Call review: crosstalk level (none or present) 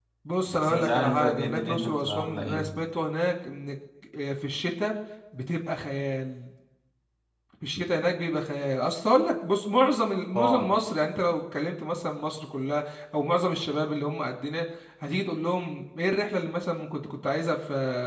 present